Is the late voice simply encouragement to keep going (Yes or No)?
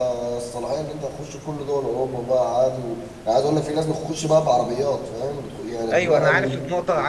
No